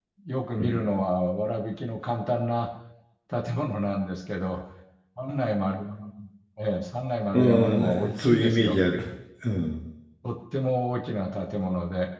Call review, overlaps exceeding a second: present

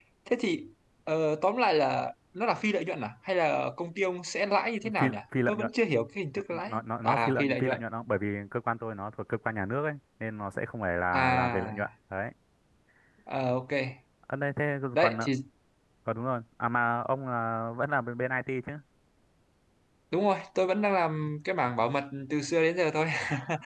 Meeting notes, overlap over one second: present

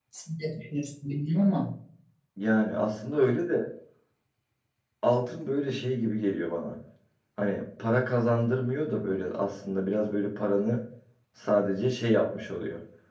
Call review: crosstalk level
none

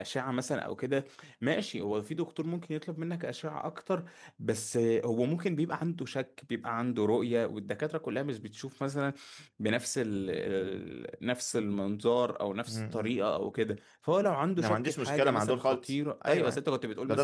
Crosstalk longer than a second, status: present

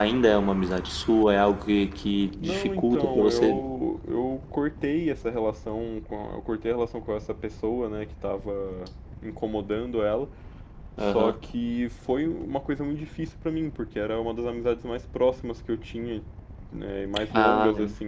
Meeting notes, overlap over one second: present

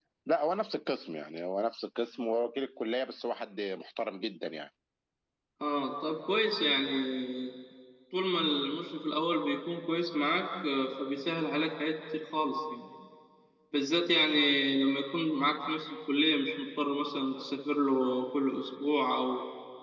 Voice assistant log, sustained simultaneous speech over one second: none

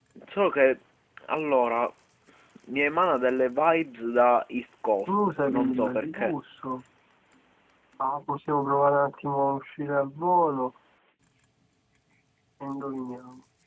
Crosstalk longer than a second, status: present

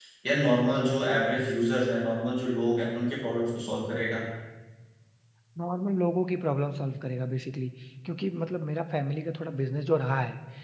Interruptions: none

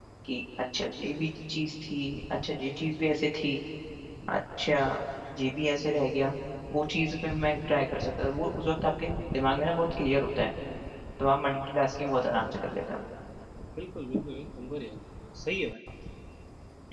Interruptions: none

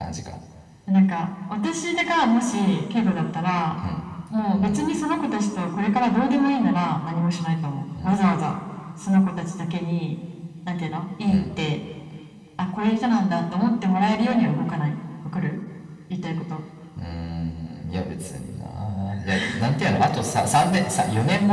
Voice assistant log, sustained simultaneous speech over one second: none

